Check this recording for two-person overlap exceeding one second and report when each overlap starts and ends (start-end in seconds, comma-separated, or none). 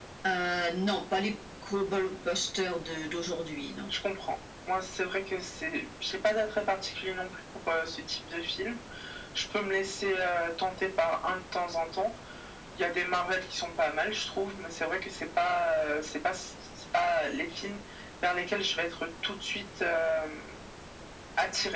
none